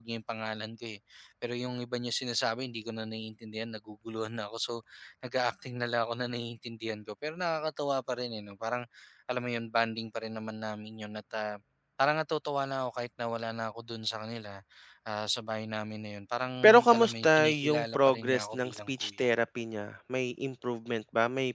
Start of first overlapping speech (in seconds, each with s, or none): 16.6 s